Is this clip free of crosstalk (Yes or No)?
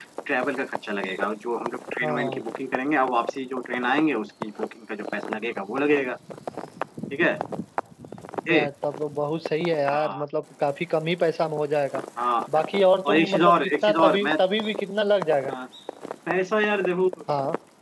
No